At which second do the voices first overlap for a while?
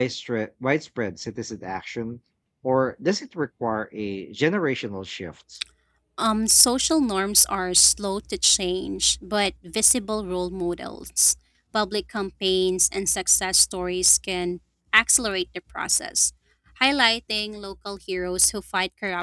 none

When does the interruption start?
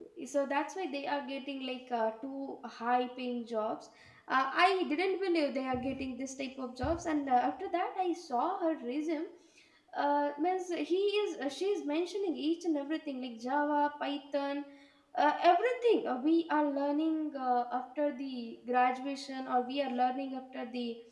none

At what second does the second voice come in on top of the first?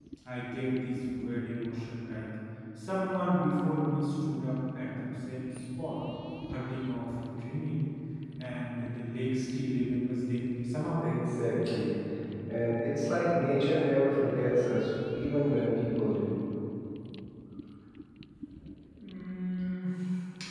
none

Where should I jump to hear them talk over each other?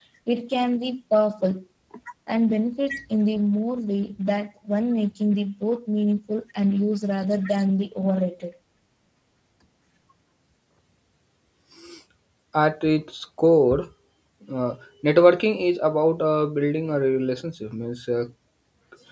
none

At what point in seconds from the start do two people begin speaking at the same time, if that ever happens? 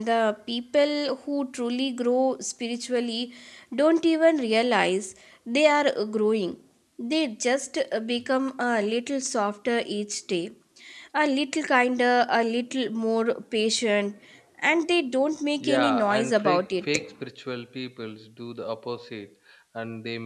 15.6 s

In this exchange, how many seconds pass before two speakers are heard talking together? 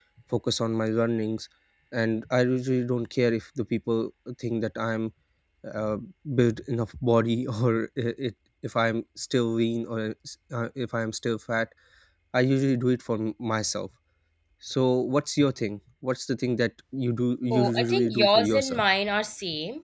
17.5 s

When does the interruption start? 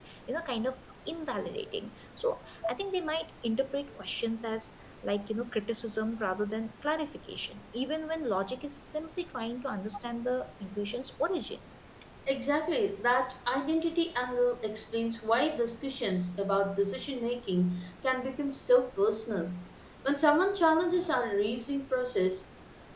none

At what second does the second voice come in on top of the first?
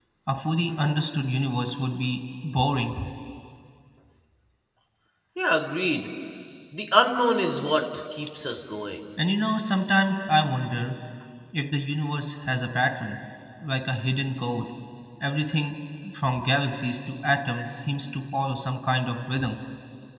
none

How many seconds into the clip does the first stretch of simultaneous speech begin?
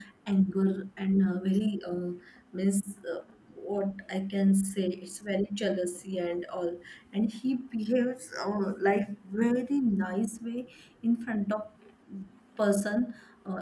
none

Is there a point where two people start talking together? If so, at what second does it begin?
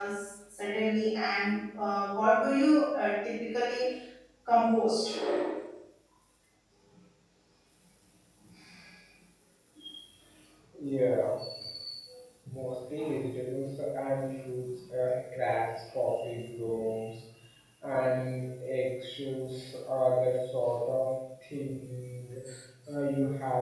none

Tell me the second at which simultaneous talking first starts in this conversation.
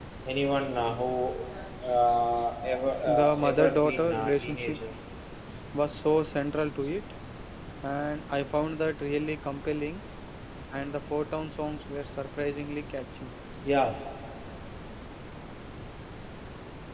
3.1 s

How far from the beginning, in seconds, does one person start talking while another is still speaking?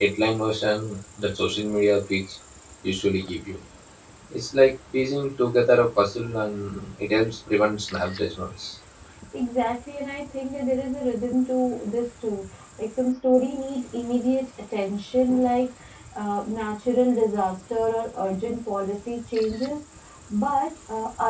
none

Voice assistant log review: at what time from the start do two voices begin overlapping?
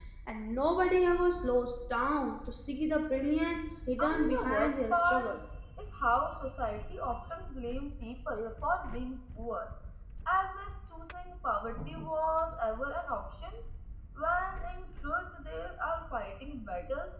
4.0 s

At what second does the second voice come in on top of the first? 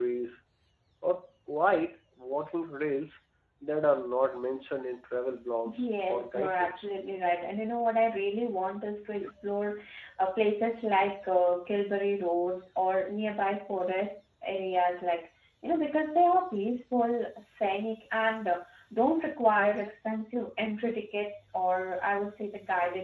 5.6 s

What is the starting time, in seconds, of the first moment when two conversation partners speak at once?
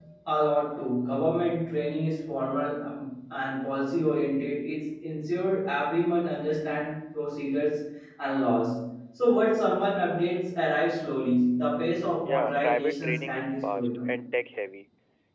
12.2 s

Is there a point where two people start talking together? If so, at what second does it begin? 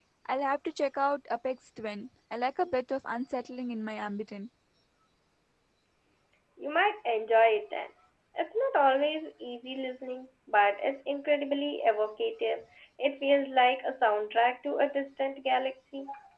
none

